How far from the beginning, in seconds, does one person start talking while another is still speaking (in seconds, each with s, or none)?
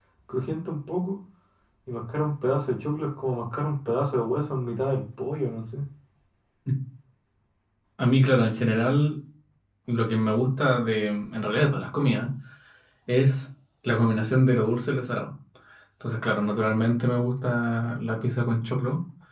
none